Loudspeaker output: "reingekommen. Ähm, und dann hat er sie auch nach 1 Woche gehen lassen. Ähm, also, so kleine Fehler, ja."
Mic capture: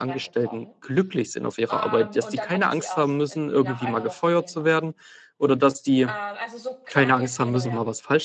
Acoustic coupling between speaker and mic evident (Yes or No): Yes